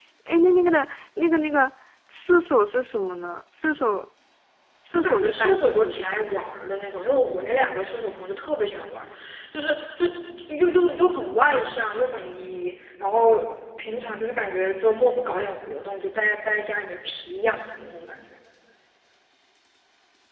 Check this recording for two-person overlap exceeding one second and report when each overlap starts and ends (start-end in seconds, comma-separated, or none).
5.0-6.4